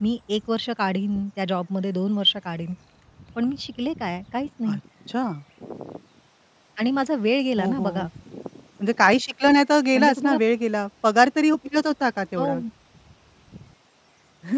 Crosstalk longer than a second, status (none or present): none